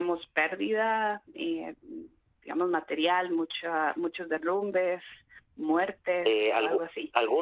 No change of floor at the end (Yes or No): No